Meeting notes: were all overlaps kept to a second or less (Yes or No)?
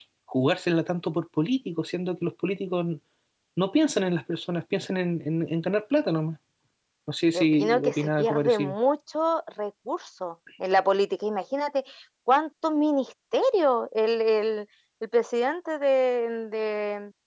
No